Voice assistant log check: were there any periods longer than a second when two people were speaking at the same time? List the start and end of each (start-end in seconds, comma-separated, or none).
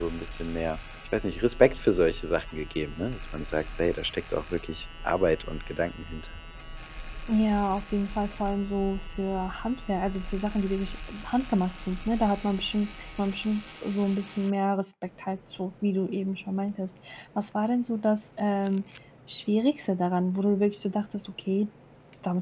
none